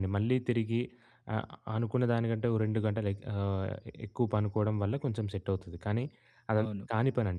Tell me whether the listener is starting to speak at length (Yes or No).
No